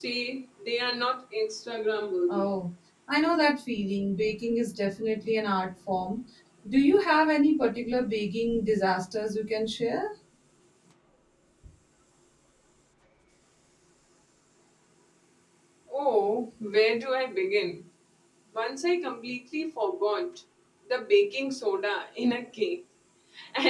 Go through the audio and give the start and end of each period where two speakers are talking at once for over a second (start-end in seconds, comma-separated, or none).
none